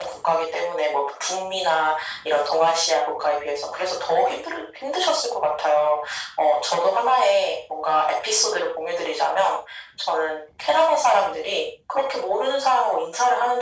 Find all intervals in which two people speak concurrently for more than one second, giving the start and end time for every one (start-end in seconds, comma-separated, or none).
none